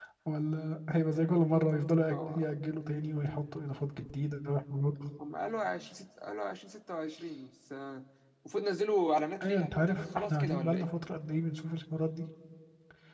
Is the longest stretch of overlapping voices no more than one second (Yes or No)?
No